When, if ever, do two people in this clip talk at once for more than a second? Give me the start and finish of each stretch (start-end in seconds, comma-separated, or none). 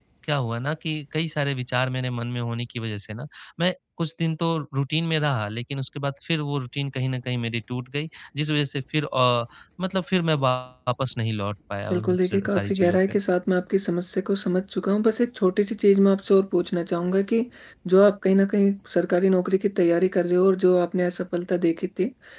11.9-13.1